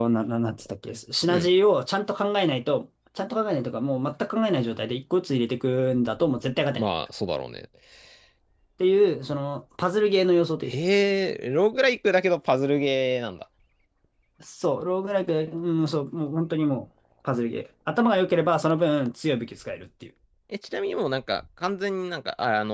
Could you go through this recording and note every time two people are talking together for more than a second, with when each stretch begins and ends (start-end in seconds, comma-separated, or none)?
none